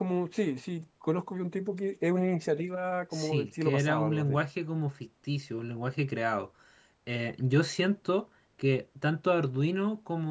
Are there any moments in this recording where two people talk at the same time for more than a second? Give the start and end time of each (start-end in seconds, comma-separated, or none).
3.1-4.3